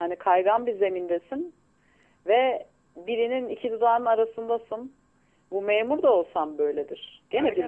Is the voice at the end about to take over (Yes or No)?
No